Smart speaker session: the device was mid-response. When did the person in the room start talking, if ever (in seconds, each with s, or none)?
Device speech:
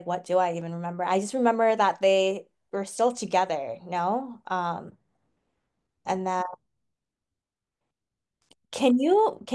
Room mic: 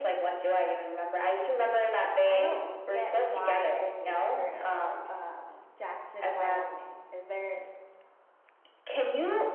2.2 s